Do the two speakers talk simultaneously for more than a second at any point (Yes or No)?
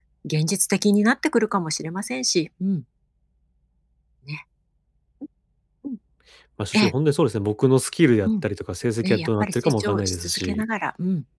Yes